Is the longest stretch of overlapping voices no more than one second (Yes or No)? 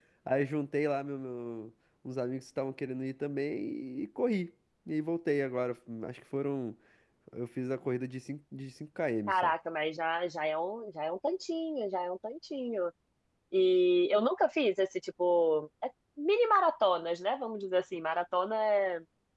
Yes